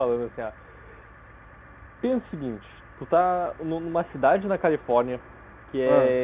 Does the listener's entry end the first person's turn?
No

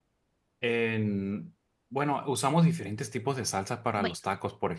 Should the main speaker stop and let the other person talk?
No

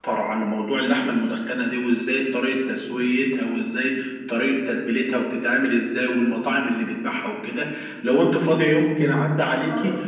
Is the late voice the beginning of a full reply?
No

